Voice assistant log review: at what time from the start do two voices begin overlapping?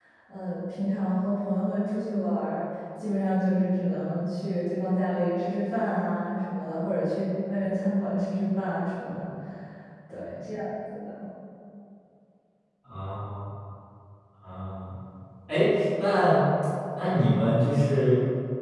none

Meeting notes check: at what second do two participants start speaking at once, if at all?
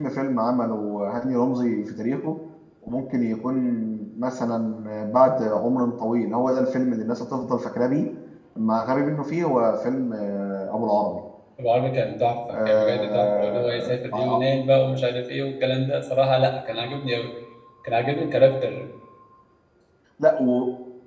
13 s

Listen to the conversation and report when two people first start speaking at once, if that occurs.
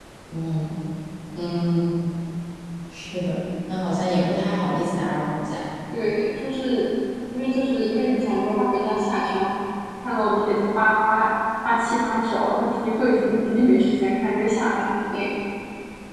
none

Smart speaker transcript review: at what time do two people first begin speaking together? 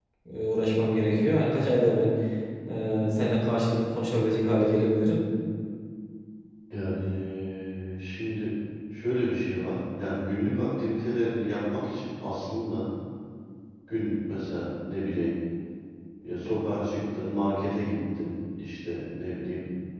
none

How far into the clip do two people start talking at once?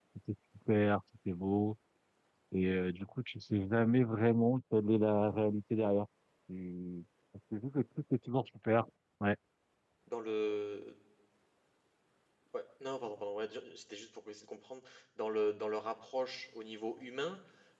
none

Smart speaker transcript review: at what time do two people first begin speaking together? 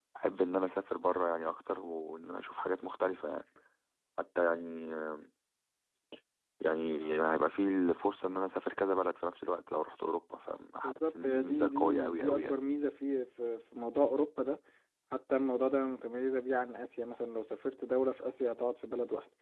11 s

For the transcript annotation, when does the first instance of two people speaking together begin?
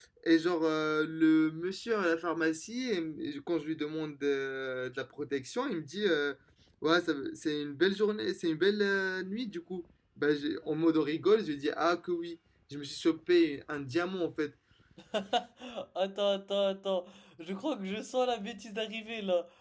none

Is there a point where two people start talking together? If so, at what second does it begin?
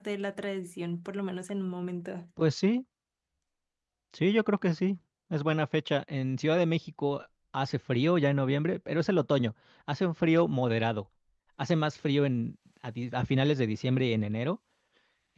none

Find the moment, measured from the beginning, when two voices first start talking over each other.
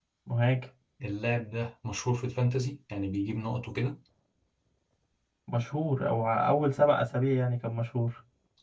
none

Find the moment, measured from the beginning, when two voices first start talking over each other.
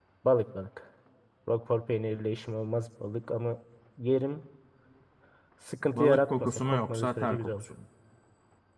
6 s

